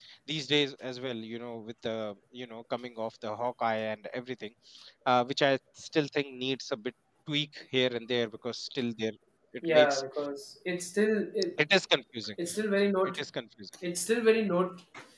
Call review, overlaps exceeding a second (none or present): none